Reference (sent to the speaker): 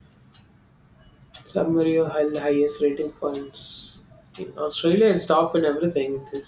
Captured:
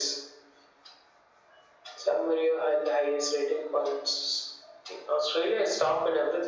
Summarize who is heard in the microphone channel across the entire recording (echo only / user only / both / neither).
echo only